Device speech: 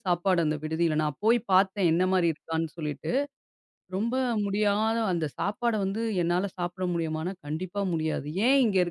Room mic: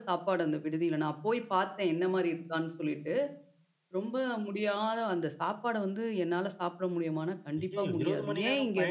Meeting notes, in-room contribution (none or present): present